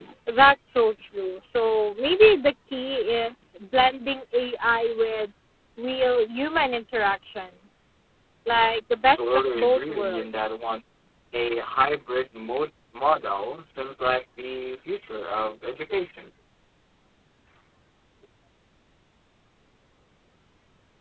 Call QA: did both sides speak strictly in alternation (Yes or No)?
No